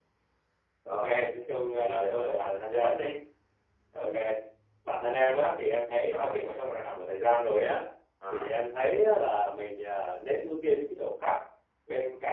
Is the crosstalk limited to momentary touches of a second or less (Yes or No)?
No